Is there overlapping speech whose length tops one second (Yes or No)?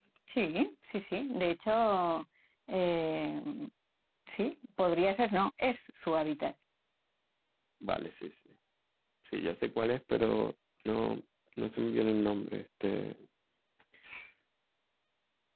No